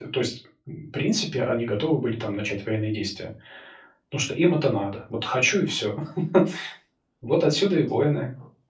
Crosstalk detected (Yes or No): No